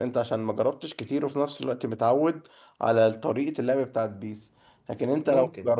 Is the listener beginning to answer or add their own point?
No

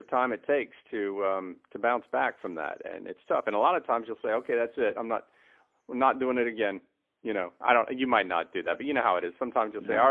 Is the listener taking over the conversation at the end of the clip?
No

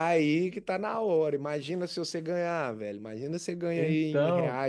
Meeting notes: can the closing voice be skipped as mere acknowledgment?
Yes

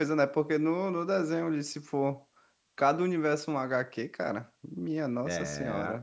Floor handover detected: Yes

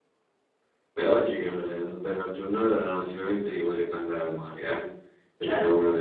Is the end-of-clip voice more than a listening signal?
No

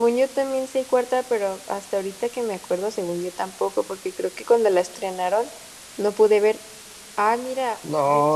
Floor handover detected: Yes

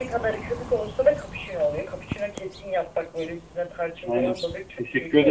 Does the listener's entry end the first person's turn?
Yes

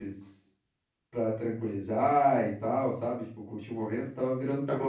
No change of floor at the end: No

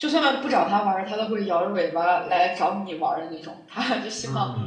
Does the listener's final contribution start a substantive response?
No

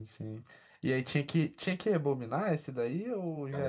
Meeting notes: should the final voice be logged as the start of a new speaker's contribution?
Yes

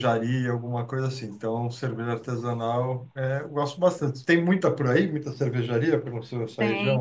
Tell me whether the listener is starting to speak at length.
Yes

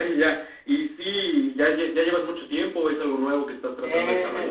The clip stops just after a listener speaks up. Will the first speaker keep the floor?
No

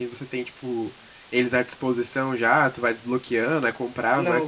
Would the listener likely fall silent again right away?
No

